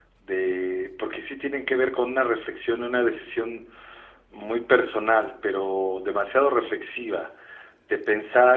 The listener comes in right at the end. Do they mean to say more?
No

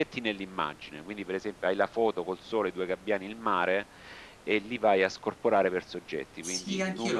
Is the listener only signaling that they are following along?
No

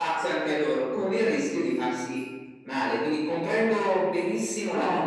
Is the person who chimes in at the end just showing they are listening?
Yes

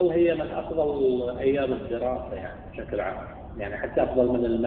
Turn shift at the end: No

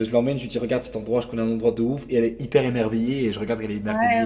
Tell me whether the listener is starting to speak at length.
Yes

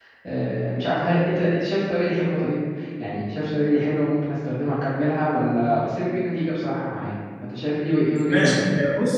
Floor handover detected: Yes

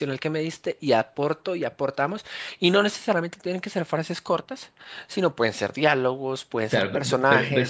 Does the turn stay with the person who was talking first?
No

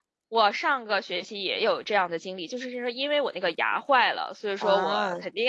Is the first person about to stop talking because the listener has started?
No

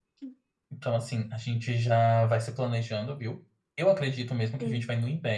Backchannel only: Yes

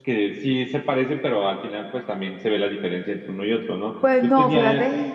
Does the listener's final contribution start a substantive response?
Yes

